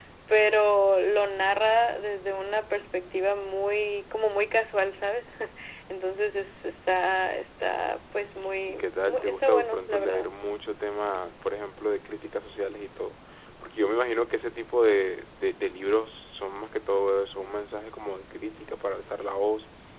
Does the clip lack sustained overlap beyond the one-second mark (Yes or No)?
No